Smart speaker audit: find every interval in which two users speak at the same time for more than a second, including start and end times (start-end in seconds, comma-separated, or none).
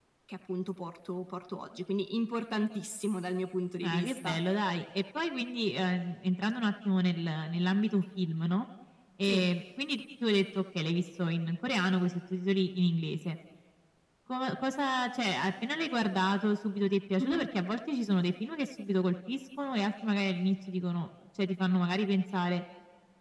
none